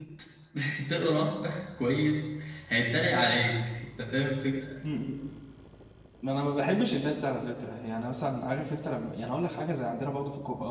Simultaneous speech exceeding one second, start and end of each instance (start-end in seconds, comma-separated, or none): none